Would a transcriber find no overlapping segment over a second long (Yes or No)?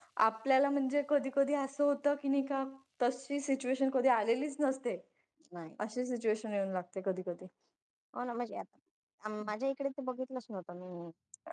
Yes